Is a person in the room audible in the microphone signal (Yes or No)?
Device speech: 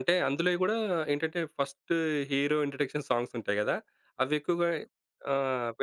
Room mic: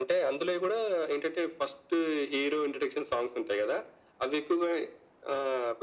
No